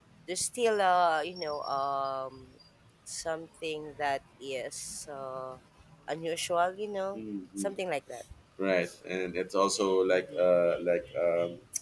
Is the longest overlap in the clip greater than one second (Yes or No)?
No